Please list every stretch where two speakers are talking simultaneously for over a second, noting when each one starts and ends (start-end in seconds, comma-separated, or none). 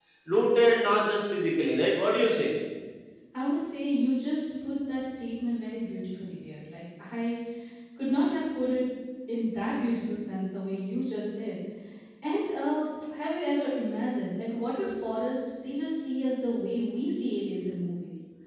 none